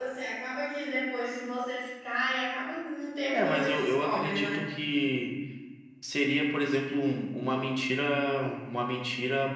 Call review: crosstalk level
present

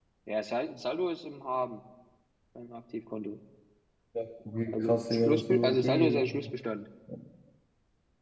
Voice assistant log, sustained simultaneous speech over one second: present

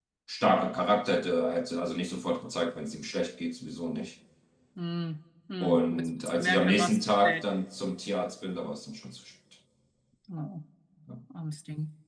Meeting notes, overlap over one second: present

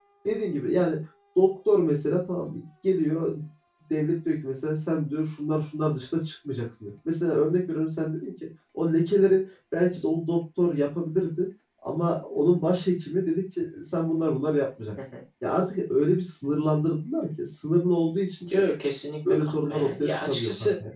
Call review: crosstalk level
present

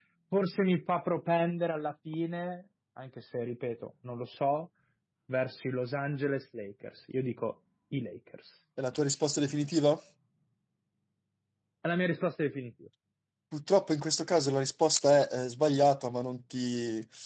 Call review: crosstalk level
none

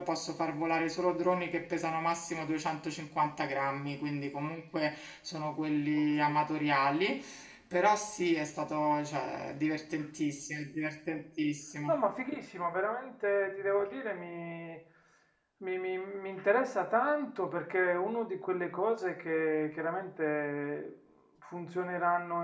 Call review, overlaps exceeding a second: none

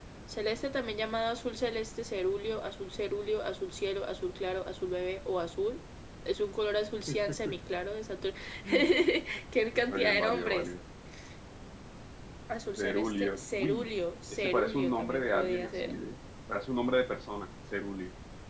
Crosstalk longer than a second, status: present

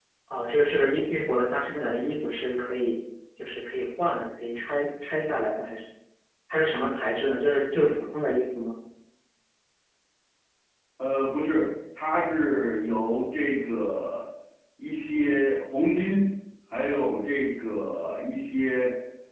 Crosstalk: none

